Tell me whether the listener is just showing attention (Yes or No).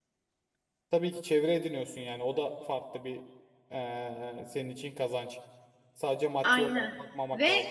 No